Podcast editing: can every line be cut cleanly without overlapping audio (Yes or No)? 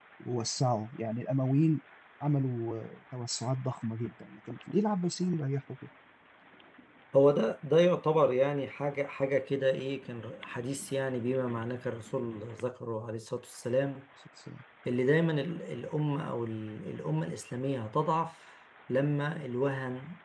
Yes